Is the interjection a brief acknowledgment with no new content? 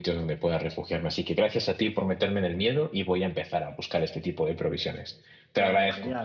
No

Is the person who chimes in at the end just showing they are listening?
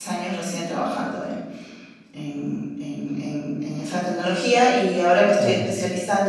Yes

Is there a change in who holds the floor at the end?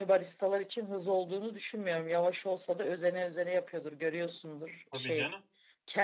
No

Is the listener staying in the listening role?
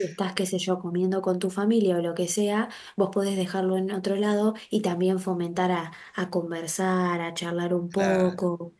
Yes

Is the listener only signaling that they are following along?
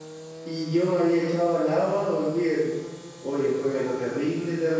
Yes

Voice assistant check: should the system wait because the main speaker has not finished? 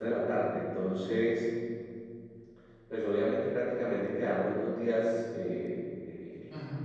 Yes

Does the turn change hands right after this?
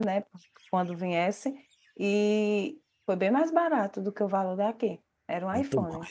Yes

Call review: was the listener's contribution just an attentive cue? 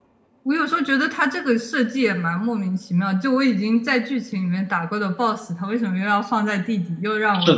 No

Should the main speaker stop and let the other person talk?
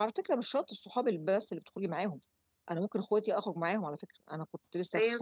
No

